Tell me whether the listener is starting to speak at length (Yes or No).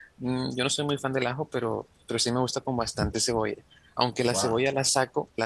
No